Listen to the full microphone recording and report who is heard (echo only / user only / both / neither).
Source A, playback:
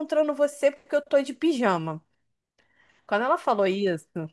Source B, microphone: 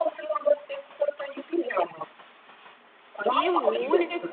both